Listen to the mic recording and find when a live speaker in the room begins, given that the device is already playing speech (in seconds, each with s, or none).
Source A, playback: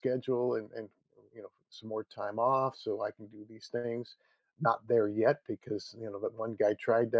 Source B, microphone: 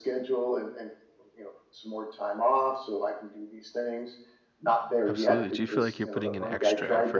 5.1 s